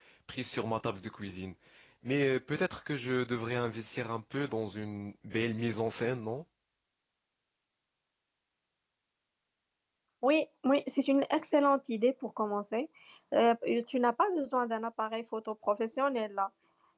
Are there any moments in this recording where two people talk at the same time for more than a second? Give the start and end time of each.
none

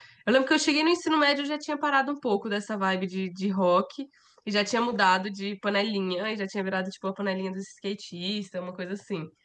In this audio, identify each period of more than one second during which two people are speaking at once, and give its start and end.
none

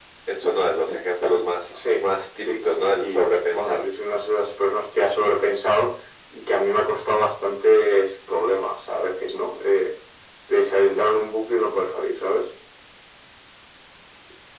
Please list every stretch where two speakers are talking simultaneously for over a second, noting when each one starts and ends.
2.4-3.8

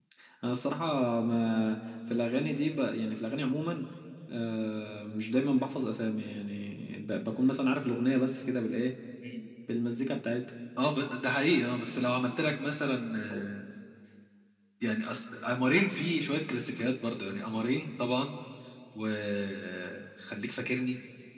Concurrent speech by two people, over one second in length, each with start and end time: none

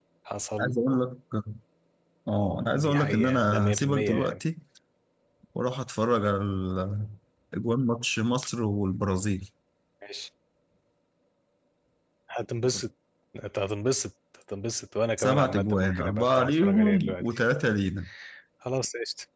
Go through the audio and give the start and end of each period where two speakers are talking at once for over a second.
2.8-4.4, 15.2-17.4

